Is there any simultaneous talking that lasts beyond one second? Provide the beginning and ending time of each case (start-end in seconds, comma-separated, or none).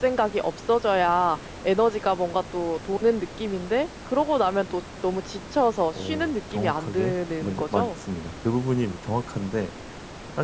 5.9-8.0